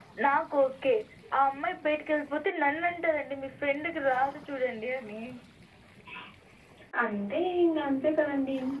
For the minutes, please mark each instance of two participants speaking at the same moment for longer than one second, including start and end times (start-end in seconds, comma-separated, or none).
none